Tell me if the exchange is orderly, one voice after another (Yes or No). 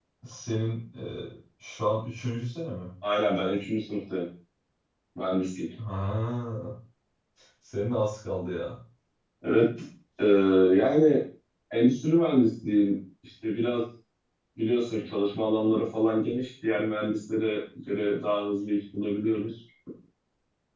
Yes